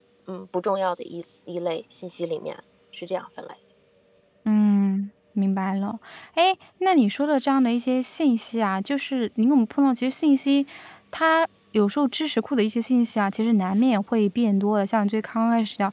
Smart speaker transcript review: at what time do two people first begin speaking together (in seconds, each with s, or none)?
none